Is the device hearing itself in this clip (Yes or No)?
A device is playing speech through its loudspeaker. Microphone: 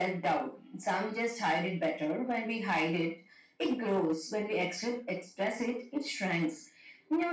Yes